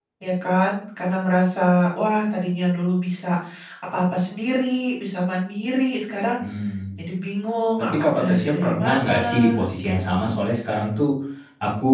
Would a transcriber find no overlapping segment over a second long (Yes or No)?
No